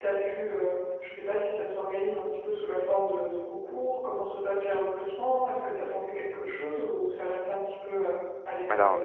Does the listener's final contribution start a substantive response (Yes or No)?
Yes